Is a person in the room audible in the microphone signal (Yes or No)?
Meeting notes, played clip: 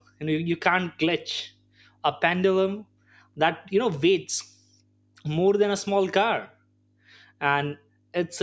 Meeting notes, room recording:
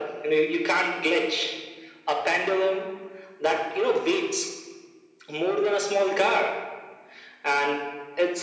No